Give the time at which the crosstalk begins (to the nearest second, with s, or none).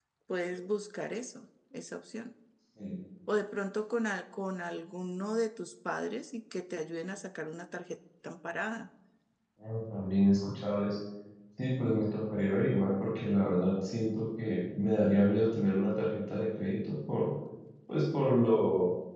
none